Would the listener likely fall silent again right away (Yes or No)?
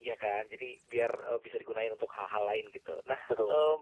Yes